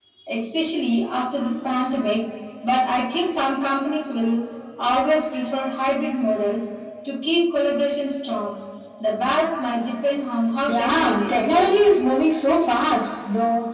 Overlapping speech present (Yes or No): Yes